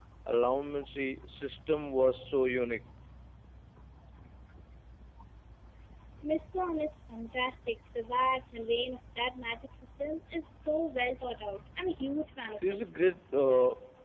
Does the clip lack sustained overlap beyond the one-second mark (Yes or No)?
Yes